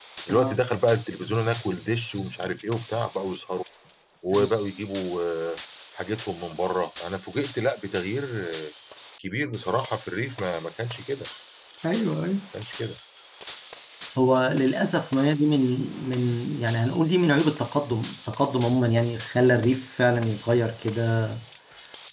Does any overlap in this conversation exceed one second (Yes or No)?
No